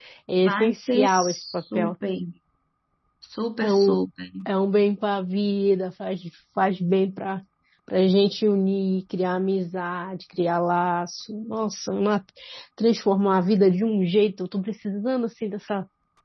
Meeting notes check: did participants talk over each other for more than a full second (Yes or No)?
Yes